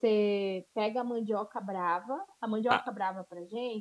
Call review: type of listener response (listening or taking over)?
listening